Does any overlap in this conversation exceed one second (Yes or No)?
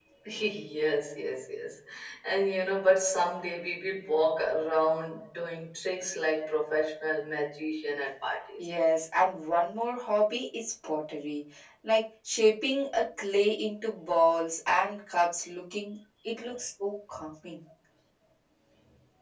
No